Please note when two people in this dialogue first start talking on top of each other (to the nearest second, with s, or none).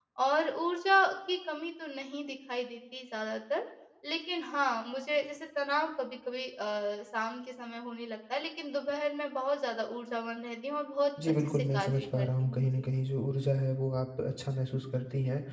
11 s